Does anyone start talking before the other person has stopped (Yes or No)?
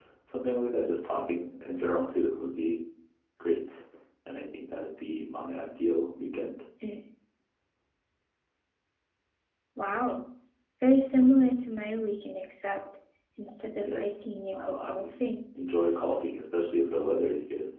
Yes